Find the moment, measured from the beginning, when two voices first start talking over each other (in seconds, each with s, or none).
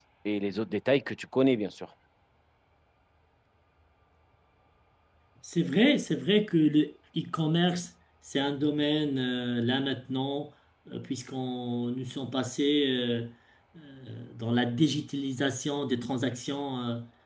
none